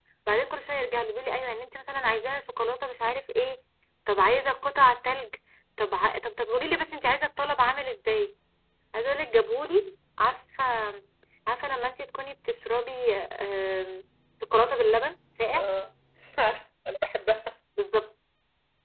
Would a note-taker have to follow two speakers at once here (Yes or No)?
No